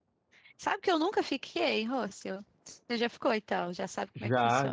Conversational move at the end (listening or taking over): taking over